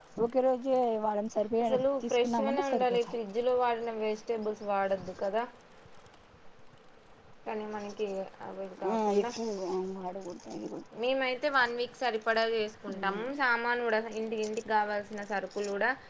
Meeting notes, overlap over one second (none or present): present